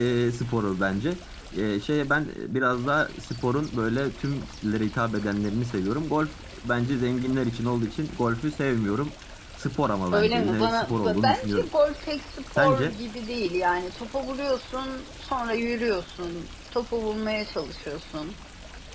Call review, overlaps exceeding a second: present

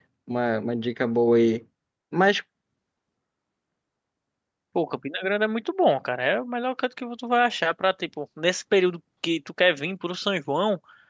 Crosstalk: none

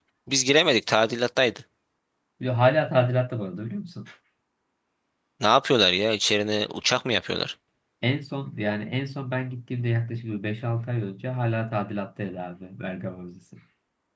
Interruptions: none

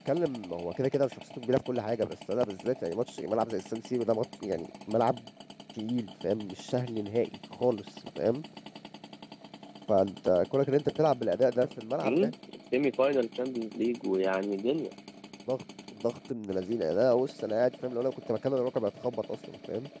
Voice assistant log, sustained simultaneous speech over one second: none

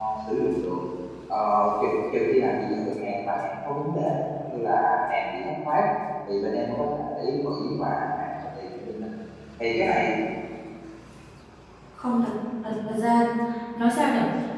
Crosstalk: none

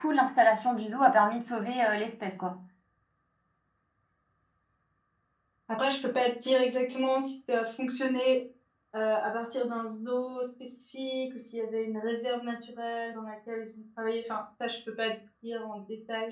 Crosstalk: none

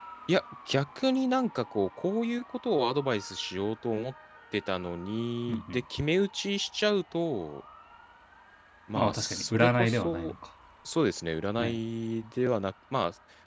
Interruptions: present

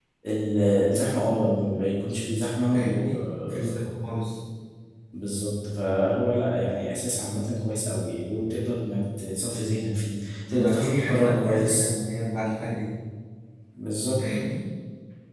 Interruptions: present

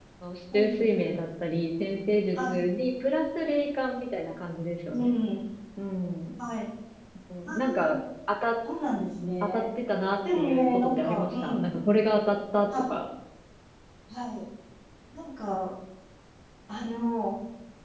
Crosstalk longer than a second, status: present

